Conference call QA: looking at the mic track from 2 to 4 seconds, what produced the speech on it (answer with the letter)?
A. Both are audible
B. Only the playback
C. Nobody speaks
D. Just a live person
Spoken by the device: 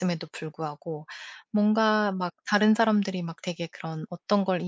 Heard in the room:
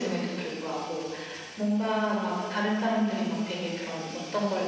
A